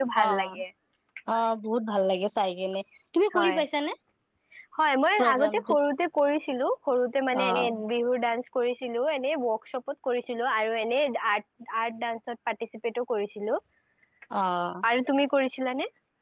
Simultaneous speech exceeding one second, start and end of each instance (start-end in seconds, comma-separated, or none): none